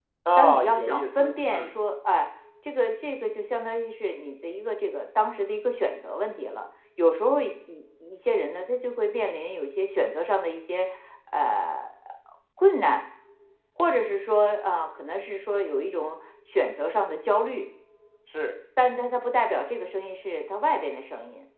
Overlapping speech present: Yes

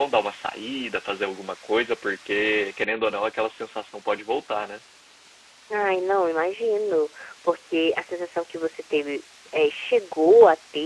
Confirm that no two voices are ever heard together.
Yes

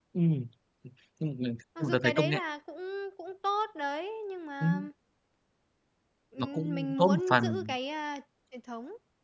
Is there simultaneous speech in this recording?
Yes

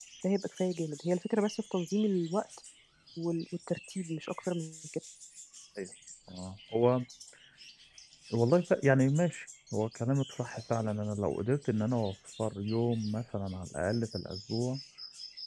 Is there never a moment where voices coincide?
Yes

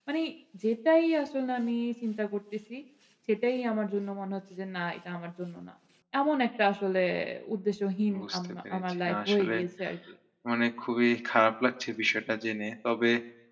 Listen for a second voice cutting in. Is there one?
Yes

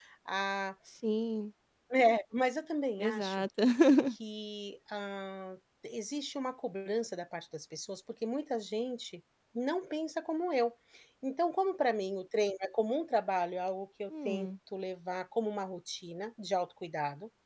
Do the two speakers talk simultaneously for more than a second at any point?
No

